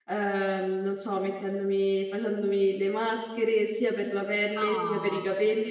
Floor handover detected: No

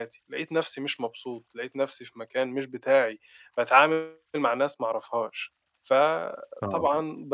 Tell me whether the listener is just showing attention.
Yes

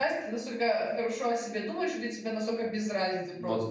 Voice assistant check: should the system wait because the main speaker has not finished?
No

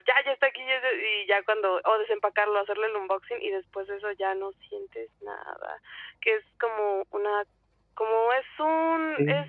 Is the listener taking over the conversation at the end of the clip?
No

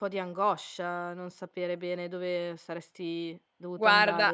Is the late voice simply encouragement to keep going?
No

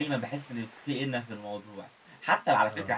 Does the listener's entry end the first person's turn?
No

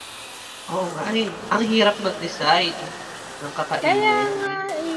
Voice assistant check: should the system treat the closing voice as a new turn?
Yes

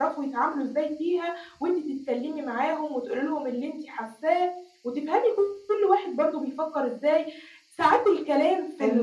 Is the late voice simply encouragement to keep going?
Yes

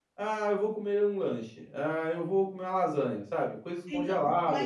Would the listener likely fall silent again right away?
No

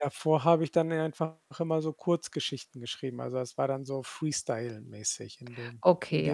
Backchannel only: No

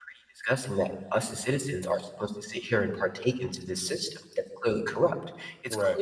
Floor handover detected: No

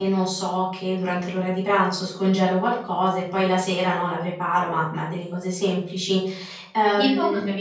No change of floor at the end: No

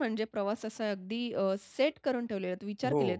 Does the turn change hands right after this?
No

